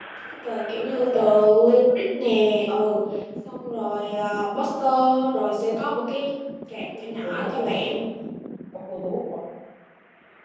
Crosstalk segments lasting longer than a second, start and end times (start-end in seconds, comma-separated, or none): none